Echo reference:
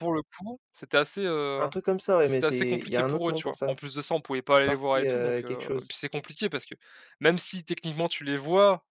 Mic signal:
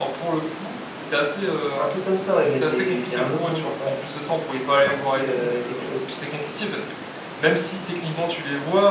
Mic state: echo only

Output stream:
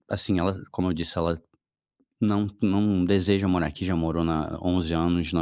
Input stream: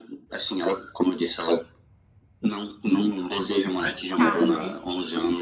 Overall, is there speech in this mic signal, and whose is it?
both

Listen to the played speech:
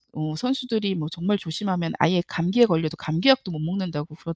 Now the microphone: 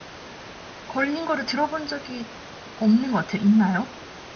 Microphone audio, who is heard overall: user only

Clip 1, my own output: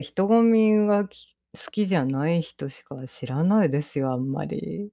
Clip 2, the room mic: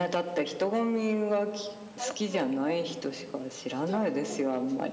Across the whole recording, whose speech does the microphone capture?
both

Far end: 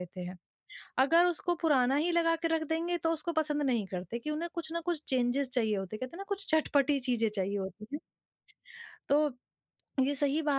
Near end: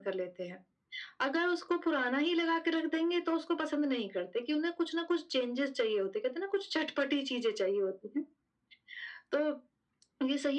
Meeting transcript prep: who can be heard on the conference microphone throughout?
echo only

